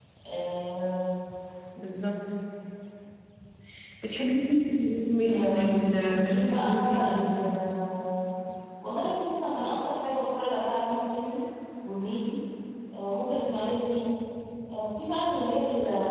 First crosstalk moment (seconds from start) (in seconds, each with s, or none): 5.2 s